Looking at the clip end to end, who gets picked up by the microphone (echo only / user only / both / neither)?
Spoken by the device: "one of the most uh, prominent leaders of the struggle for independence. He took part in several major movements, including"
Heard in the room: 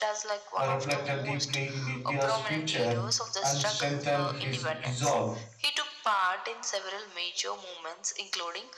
both